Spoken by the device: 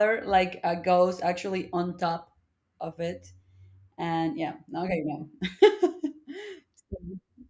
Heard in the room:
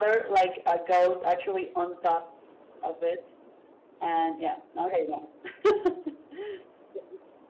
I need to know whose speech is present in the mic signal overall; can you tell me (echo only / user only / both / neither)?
echo only